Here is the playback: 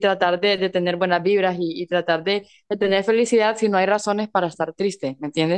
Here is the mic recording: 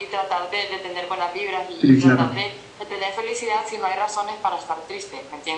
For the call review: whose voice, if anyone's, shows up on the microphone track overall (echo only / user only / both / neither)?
both